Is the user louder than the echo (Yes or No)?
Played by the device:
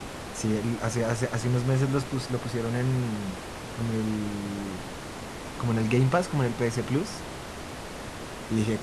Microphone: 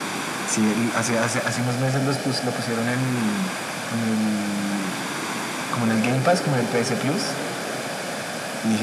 No